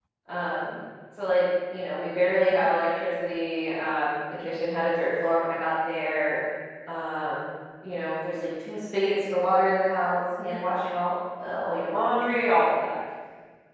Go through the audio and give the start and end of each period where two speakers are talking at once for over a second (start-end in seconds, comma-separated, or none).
none